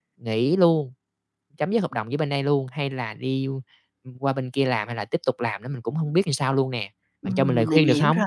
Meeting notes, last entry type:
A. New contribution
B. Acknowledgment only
A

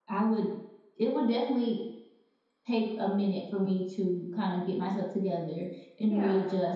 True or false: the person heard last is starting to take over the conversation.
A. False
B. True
A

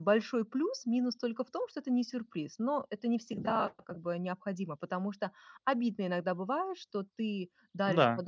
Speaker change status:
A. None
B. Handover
A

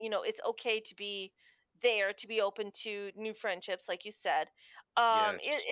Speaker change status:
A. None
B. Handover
A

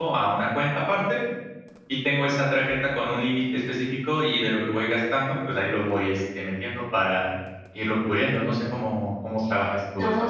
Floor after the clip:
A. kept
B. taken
B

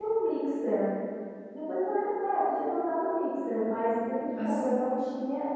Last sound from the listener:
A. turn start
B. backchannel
B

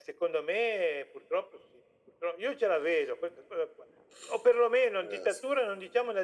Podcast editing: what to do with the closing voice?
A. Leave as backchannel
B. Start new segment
A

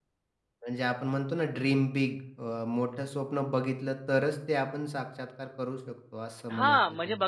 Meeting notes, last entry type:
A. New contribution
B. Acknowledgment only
A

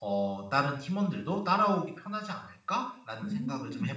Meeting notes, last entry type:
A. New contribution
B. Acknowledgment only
A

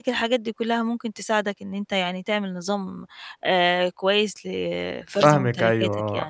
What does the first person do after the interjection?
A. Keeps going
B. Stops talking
B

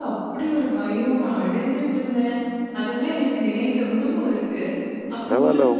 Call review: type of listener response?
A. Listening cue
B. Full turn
B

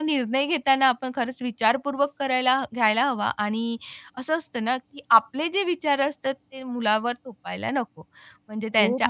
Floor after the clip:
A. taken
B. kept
B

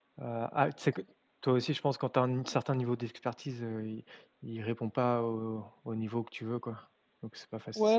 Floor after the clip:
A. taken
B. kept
A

